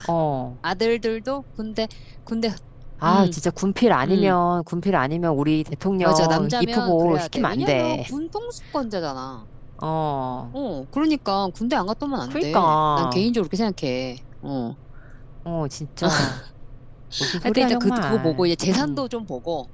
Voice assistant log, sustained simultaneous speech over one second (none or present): present